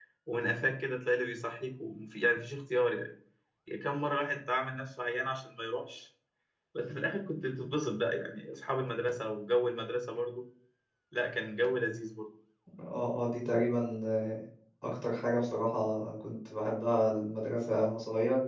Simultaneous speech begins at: none

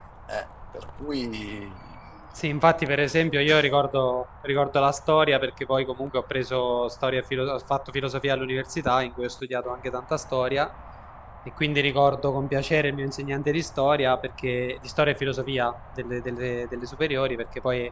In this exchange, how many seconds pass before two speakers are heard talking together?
none

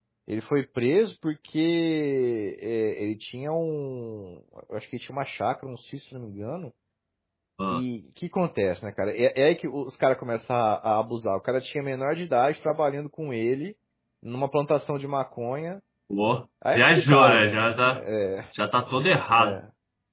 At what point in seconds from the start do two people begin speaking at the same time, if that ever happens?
16.7 s

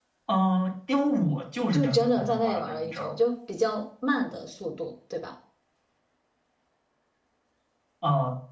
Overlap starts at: 1.6 s

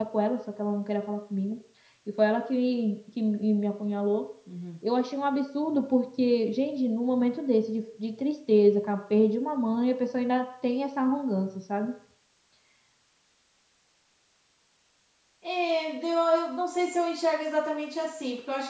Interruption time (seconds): none

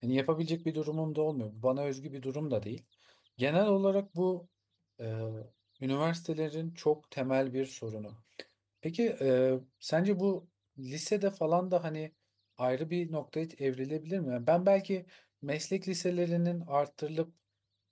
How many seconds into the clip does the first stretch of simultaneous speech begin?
none

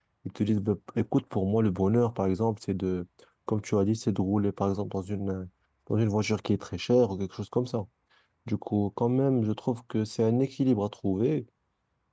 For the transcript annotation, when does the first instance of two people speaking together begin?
none

